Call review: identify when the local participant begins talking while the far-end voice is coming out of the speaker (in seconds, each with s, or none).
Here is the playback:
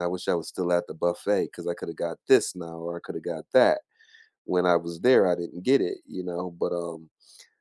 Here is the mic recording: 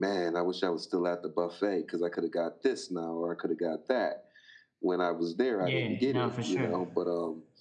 5.6 s